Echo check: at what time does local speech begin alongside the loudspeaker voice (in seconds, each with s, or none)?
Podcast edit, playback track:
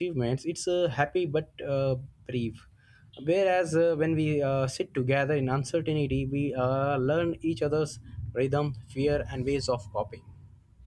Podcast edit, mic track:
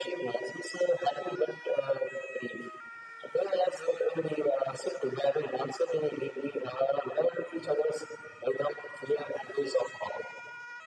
none